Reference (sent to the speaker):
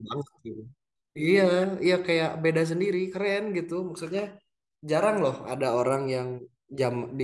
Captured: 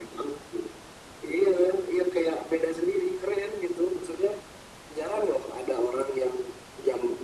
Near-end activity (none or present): none